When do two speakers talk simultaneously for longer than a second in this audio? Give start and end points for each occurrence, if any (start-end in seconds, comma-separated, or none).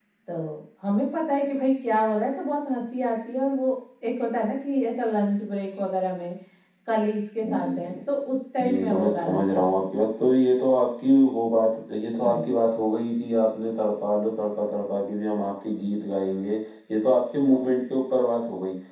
8.6-9.8